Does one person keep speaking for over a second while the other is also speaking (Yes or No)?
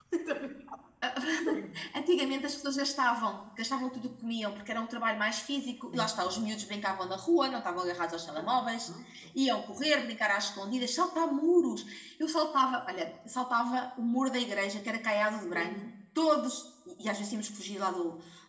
No